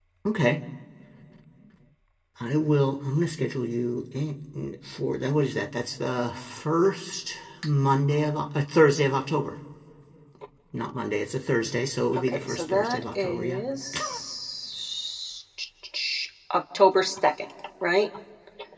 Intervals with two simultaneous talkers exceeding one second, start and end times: 12.3-13.6

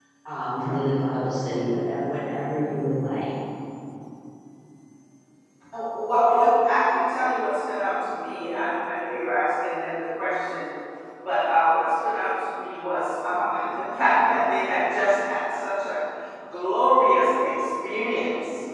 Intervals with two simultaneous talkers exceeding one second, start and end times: none

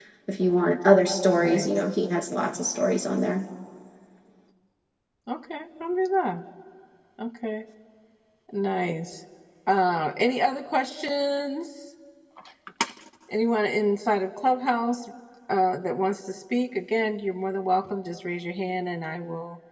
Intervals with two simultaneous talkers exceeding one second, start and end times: none

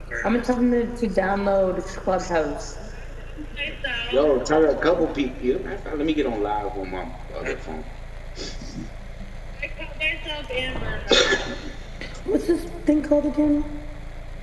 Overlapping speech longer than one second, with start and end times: none

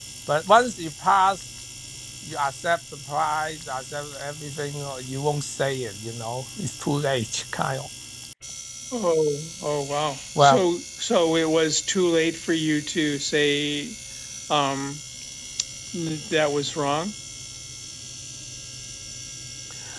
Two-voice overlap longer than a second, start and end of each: none

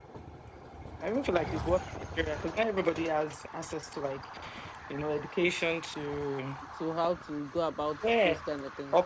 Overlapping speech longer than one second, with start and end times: none

